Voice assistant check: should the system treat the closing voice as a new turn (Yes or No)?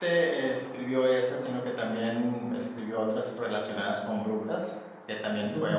No